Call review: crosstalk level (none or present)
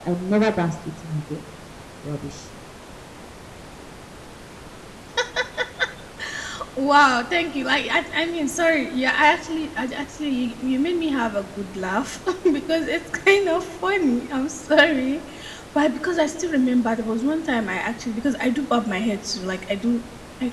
none